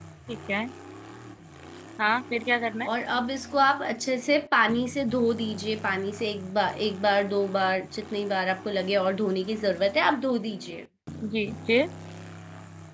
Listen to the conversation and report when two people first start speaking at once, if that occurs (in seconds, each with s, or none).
none